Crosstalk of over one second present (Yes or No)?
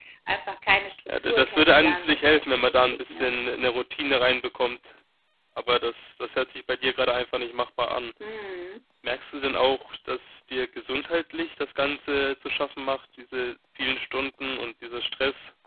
Yes